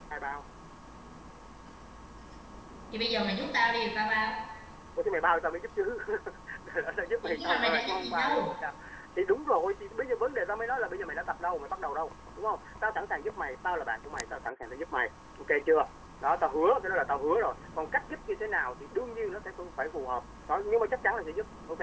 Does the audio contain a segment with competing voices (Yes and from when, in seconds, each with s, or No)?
Yes, from 7.2 s